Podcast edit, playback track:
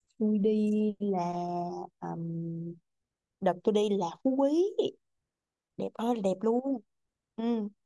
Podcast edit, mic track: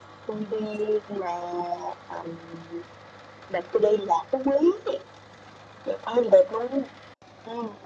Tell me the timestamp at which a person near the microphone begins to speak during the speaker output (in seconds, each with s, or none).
none